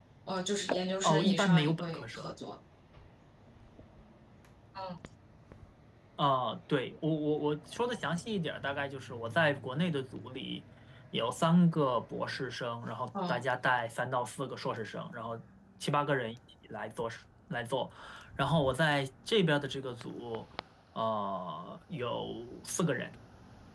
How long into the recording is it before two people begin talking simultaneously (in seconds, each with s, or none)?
1.0 s